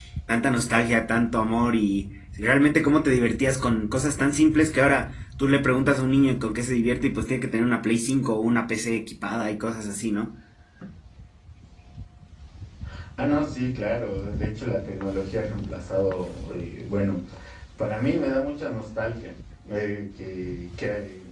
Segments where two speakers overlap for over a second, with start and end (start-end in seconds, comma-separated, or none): none